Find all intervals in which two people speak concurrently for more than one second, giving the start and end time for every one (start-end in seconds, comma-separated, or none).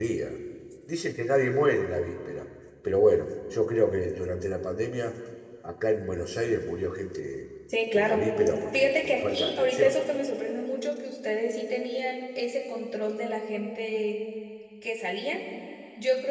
8.7-9.9